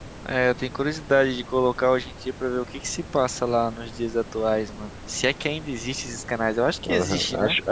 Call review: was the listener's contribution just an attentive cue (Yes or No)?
No